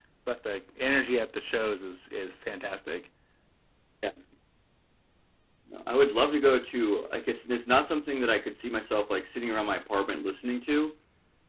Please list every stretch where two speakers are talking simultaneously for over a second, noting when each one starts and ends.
none

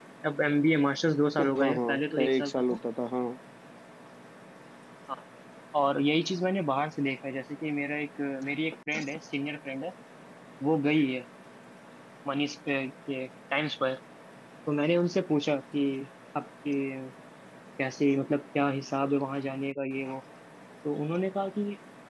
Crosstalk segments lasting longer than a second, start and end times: 1.4-2.8

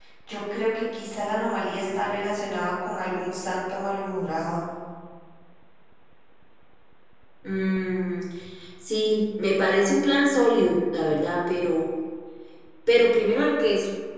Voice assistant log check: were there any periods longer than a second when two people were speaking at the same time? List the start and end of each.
none

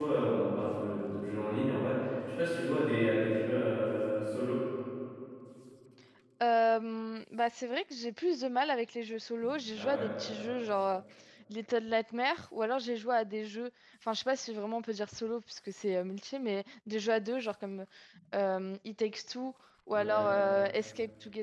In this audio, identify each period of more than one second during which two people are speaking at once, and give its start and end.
none

